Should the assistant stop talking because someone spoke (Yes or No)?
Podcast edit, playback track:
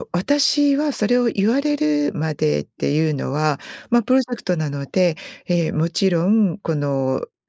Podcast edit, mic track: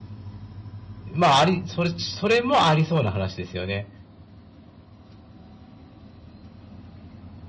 Yes